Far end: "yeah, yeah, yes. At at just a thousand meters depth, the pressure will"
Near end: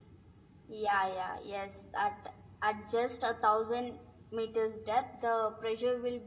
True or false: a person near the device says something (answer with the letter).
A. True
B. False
B